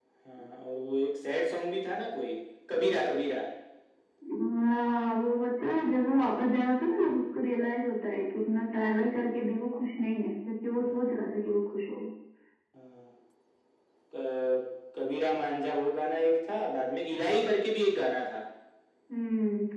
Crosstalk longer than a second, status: none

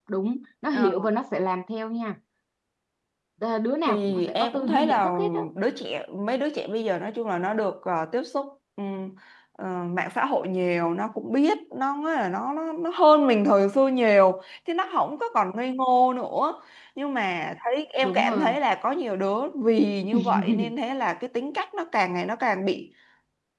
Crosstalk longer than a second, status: present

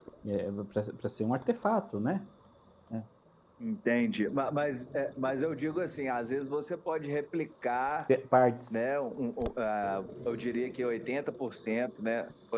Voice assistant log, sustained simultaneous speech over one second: none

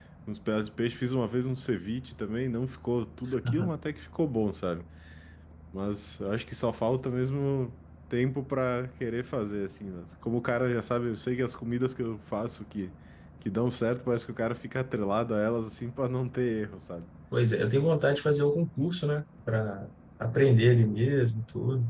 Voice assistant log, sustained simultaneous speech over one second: none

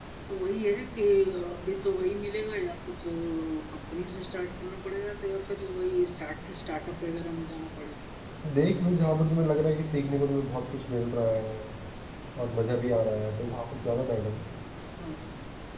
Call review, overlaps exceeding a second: none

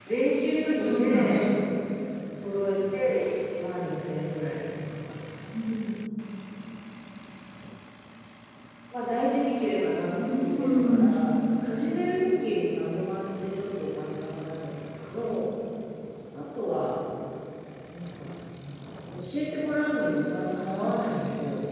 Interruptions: present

